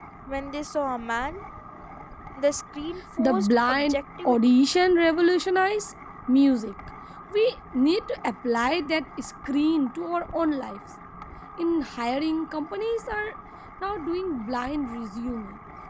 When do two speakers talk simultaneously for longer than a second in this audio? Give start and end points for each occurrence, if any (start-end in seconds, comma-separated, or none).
3.2-4.5